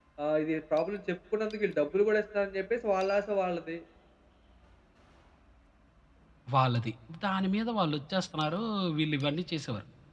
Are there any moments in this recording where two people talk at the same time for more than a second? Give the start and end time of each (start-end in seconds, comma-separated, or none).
none